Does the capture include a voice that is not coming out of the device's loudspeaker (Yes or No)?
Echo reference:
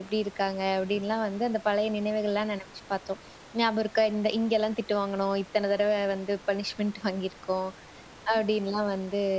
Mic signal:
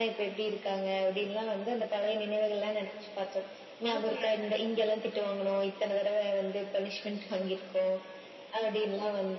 Yes